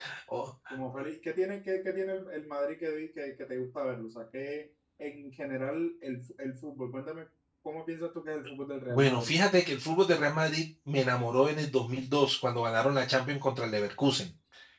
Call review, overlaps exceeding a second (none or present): none